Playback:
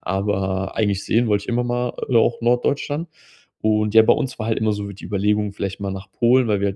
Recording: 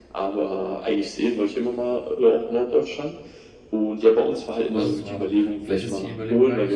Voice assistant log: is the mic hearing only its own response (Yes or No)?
No